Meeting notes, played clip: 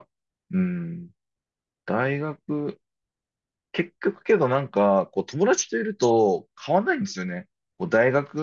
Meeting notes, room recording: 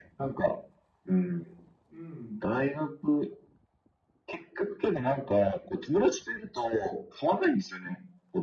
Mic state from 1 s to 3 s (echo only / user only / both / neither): both